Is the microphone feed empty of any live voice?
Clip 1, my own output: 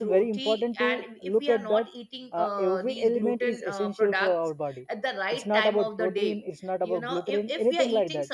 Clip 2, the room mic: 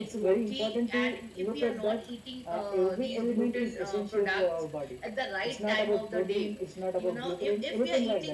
Yes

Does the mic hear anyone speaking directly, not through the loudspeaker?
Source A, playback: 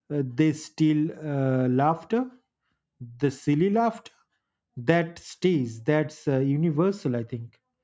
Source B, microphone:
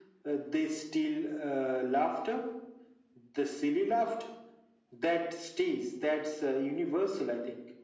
No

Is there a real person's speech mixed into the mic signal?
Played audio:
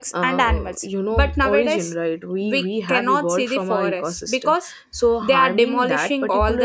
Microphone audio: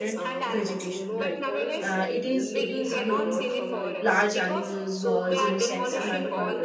Yes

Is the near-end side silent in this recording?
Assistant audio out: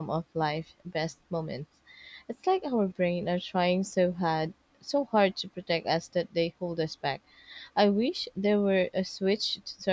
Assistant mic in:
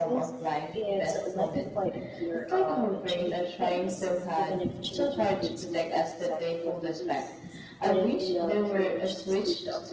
No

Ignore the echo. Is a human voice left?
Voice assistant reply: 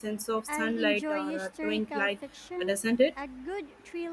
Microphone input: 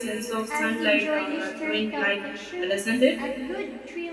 No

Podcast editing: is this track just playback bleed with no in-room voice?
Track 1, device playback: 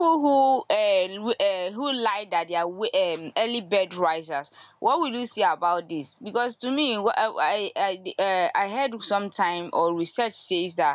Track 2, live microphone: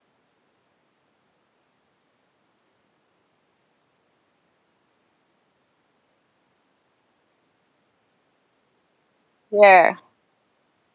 No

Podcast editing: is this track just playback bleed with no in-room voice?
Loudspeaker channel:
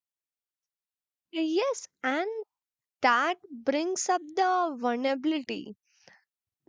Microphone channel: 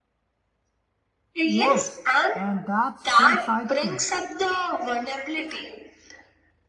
No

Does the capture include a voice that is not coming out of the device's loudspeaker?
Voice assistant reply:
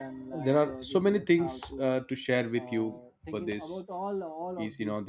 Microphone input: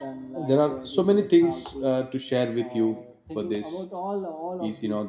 No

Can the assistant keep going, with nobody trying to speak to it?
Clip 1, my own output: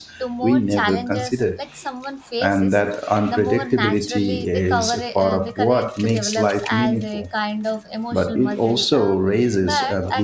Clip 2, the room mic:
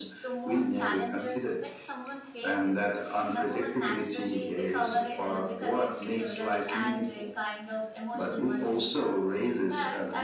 Yes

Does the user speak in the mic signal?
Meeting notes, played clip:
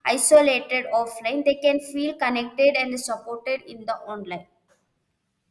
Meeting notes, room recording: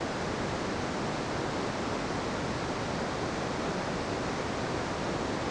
No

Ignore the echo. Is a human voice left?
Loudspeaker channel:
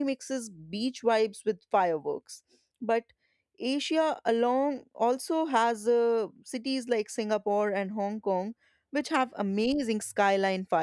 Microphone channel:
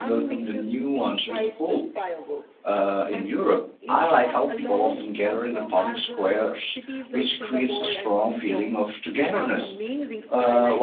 Yes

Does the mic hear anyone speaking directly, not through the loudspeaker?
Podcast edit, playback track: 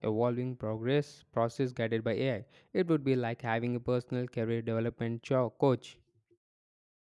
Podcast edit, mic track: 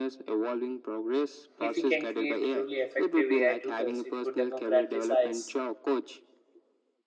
Yes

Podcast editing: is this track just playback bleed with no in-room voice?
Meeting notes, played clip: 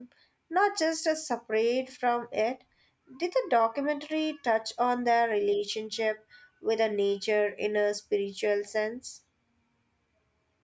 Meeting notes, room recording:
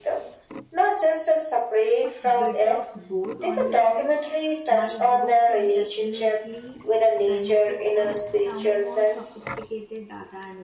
No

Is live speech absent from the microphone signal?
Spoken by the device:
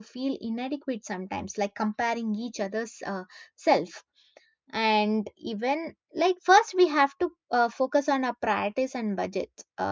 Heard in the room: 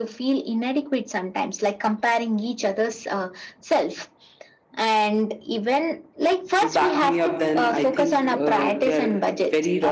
No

